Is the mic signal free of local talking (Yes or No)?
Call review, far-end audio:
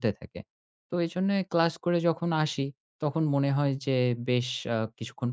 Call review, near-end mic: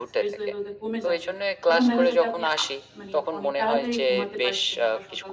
No